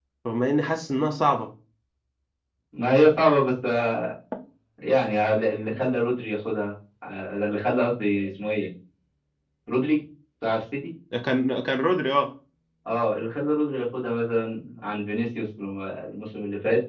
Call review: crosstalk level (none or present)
none